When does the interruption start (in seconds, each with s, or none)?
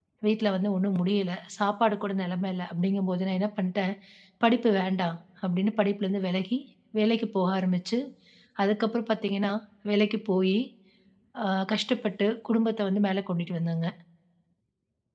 none